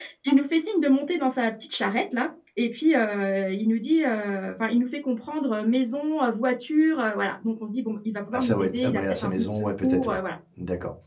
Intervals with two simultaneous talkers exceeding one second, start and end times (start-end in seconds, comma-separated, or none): 8.3-10.2